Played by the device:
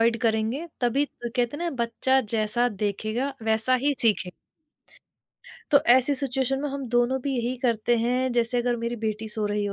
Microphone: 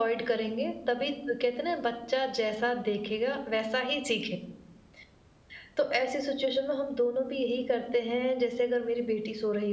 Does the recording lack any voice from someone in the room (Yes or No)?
Yes